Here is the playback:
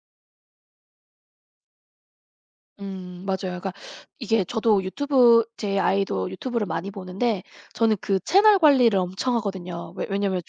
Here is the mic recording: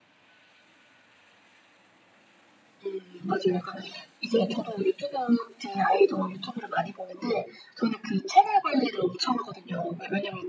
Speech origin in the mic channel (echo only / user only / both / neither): echo only